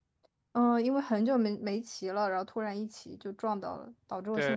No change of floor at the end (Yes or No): No